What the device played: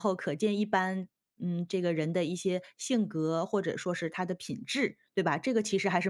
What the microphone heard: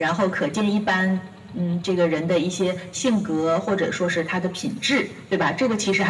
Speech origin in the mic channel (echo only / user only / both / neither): echo only